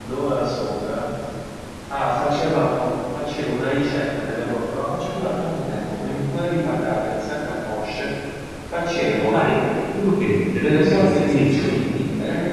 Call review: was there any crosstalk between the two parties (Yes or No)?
Yes